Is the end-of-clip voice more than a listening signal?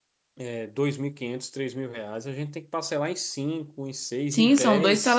Yes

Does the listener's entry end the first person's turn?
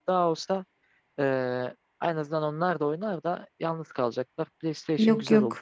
Yes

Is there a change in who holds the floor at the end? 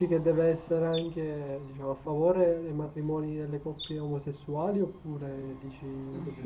Yes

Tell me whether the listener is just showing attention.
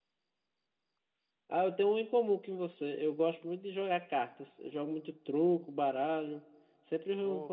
Yes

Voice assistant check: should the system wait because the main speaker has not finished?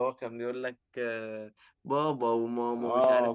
No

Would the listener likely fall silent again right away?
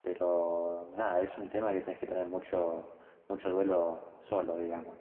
No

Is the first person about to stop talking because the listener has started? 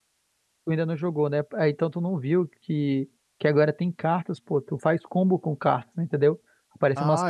No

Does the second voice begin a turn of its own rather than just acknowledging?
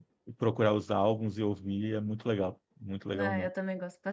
Yes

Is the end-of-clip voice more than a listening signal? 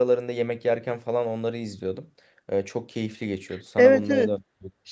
Yes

